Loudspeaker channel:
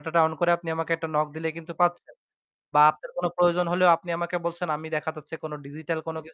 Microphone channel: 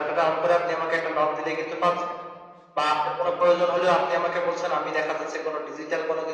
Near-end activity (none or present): none